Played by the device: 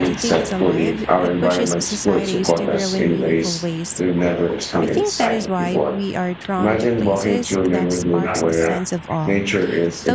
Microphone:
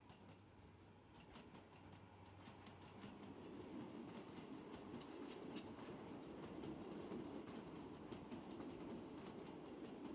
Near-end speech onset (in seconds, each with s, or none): none